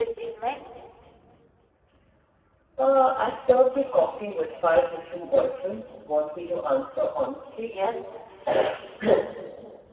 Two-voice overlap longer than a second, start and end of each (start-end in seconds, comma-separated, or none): none